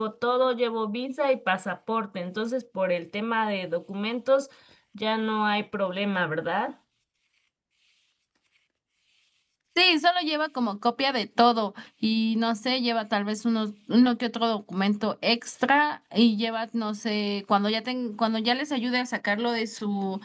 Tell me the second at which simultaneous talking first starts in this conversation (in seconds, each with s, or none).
none